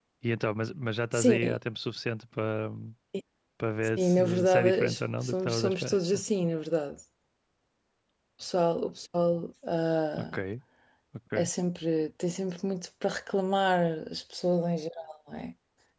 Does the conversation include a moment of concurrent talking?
Yes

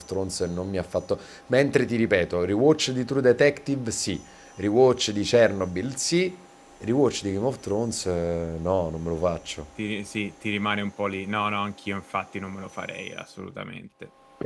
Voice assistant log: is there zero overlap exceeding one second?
Yes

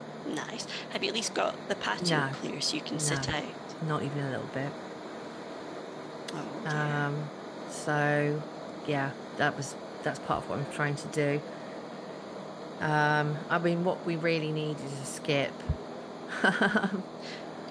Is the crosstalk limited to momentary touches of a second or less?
Yes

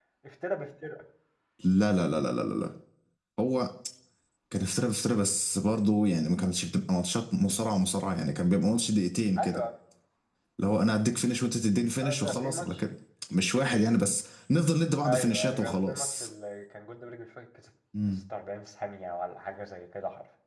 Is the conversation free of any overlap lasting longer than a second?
No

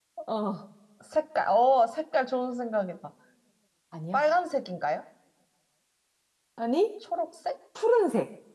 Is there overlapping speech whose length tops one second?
No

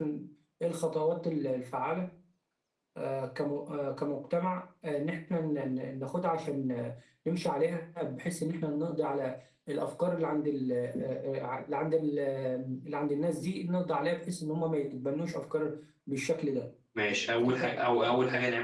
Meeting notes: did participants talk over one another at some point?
Yes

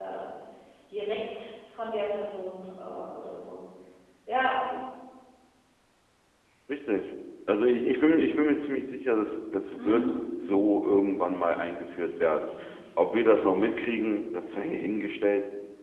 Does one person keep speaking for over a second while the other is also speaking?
No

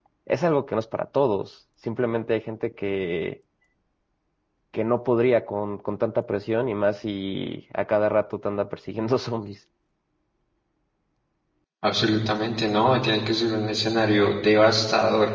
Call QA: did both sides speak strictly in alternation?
Yes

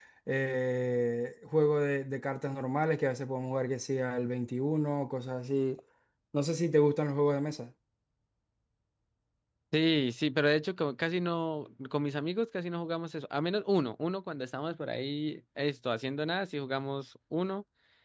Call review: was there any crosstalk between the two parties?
No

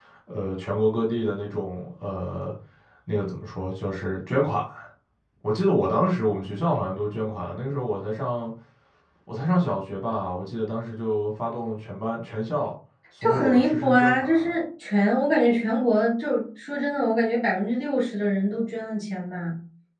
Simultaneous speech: Yes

